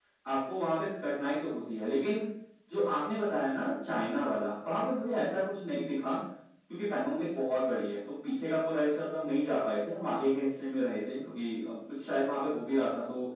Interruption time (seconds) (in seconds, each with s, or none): none